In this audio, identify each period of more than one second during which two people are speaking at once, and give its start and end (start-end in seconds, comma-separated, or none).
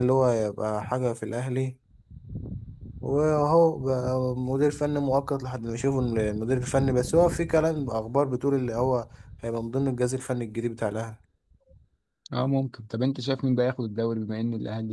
none